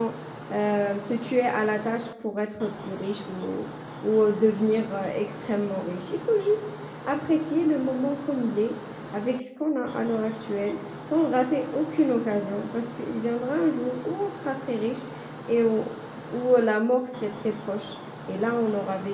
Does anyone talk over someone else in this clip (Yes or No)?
No